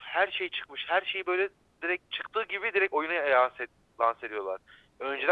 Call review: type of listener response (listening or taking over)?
listening